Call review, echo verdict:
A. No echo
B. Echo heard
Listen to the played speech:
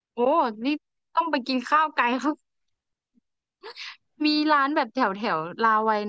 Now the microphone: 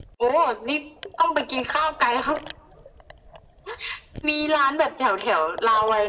B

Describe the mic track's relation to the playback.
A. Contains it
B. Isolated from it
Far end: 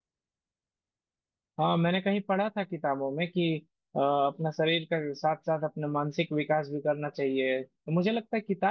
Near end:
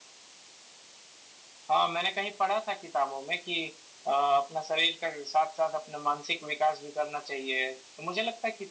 A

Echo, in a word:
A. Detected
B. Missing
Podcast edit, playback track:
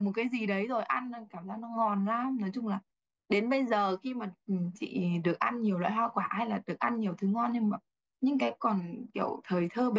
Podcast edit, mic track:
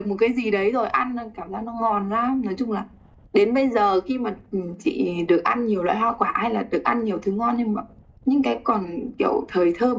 A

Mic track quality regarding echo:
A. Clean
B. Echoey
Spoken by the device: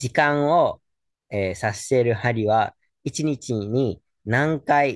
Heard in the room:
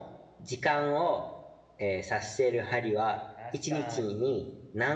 B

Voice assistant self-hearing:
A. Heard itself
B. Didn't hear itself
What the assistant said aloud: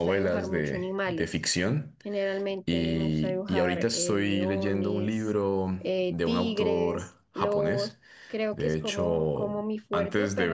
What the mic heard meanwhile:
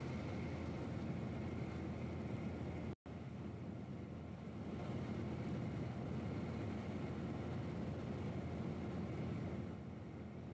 B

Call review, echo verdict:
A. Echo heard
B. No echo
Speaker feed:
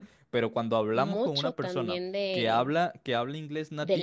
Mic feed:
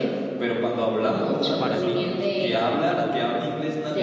A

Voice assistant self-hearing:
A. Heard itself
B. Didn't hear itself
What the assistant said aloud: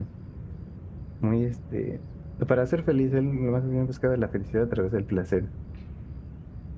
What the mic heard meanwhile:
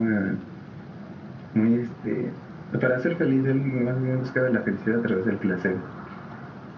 A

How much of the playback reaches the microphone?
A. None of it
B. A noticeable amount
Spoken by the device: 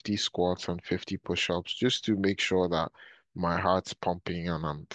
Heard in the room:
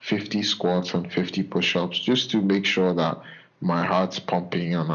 B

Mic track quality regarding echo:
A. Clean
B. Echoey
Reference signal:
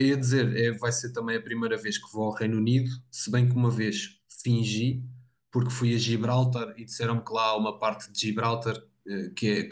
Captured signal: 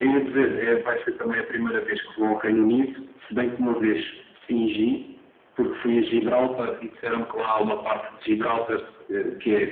B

